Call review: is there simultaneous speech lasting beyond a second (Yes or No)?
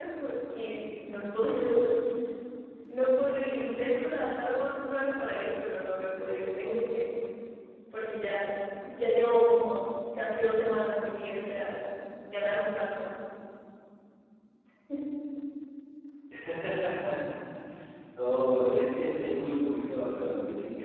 No